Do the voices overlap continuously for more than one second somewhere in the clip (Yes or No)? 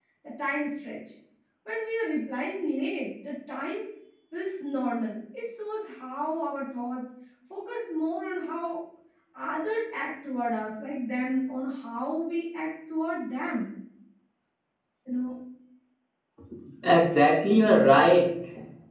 No